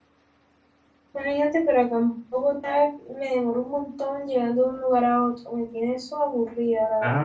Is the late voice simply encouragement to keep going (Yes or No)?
No